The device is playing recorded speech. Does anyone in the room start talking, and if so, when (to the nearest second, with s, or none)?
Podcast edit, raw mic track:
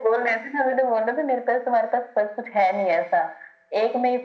none